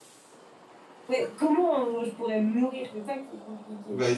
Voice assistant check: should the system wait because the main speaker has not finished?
No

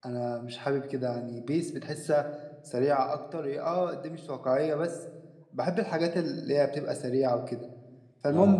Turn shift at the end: No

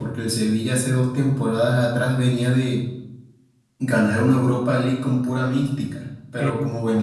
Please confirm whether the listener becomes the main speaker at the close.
No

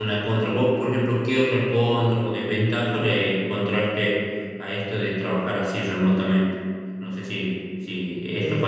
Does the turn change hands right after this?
No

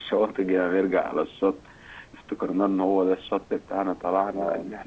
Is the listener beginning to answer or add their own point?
No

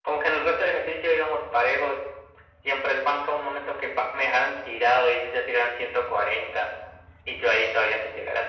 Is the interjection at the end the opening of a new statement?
No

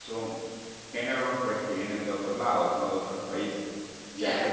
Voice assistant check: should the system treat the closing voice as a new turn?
No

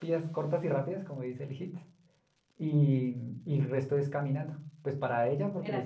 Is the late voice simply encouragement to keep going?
Yes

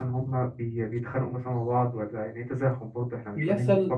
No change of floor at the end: No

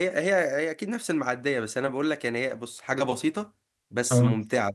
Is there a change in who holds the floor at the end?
No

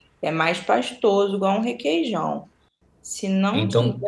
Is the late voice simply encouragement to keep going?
Yes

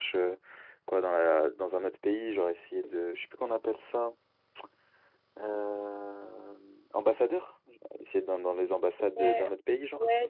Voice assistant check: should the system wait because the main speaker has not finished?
No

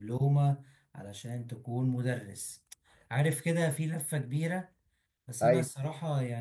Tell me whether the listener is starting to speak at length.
No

